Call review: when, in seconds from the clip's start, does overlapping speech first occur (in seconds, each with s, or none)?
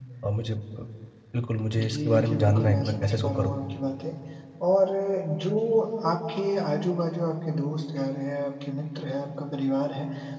1.8 s